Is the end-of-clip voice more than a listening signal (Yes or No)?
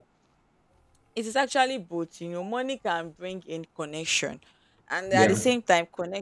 No